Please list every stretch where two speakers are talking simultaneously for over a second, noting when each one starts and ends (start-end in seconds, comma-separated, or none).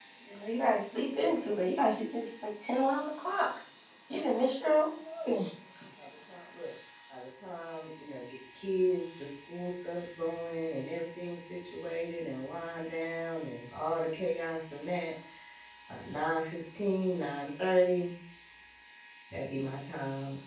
none